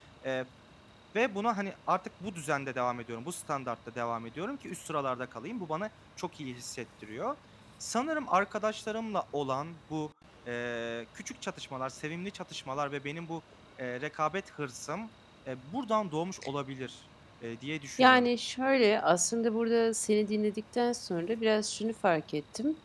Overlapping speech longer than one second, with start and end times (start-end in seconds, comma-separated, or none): none